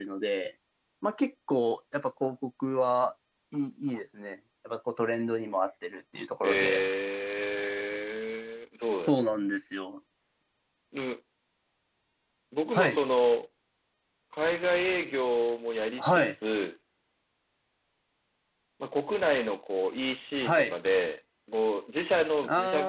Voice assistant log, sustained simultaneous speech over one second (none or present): none